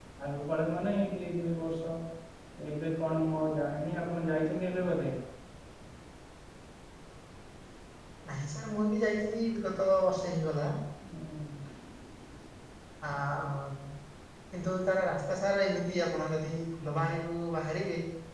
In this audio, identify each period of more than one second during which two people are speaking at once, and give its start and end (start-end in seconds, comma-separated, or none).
none